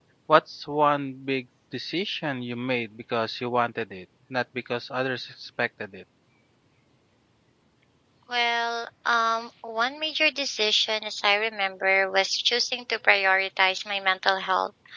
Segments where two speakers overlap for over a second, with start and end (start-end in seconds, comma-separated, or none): none